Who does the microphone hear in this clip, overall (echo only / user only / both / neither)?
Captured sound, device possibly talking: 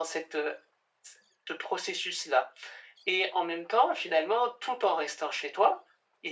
echo only